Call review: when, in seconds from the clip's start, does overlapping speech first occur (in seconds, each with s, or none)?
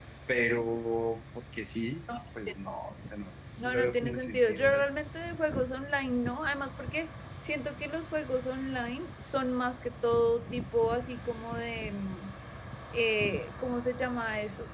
3.6 s